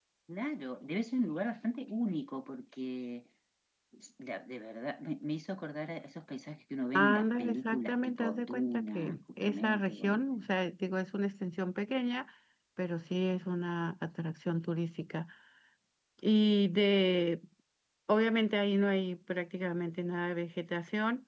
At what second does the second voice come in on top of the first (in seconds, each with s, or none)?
6.9 s